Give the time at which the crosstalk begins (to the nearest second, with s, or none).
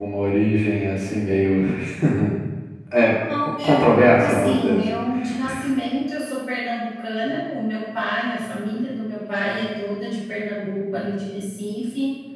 4 s